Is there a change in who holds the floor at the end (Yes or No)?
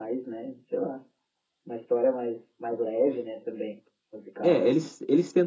Yes